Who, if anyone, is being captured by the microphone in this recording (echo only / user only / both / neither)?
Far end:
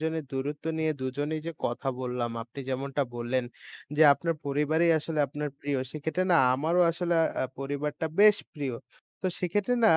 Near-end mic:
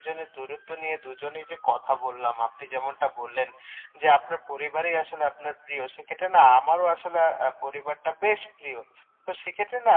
echo only